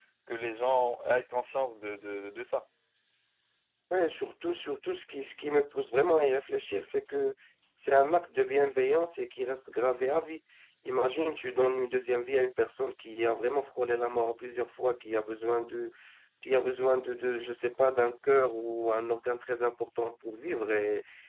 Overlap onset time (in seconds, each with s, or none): none